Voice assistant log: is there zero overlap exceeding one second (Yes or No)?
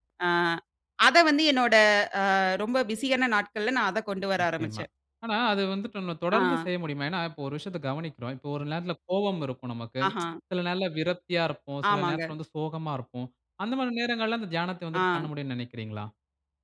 Yes